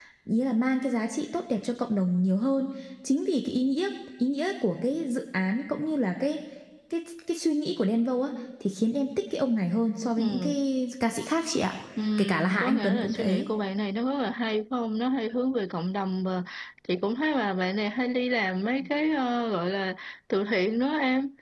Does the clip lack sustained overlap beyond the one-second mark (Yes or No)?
No